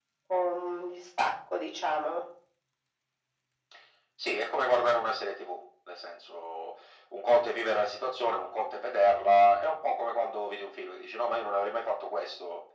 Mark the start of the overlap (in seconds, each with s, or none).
none